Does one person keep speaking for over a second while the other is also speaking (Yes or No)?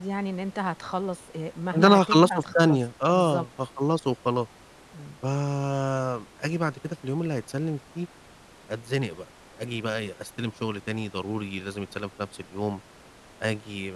Yes